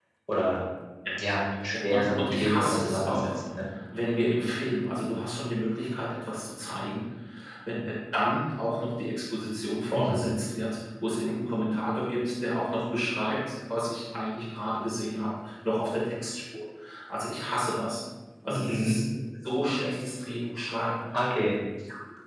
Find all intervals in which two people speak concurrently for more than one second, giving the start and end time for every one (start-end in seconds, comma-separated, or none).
1.7-3.4